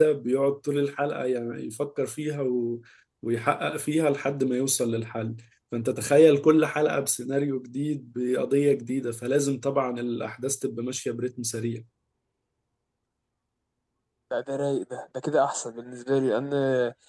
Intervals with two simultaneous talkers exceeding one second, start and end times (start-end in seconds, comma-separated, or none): none